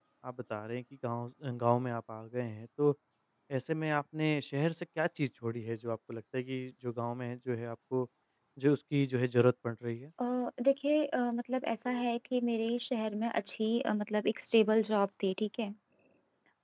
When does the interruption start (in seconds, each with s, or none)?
none